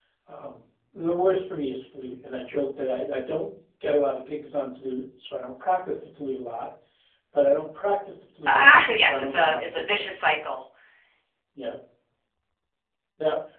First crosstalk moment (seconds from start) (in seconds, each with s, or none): 8.5 s